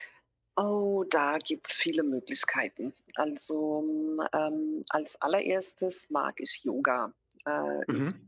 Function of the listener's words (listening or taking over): listening